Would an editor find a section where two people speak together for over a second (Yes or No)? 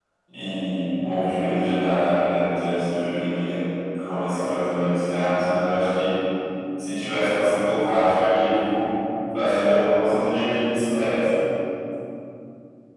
No